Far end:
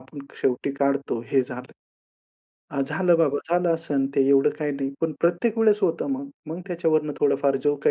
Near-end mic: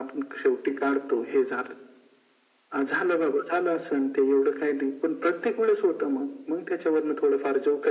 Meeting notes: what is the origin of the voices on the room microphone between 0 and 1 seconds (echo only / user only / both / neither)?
echo only